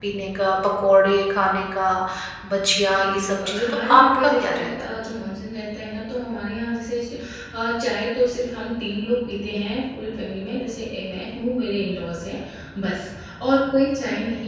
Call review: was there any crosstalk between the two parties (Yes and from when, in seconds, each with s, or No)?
Yes, from 2.9 s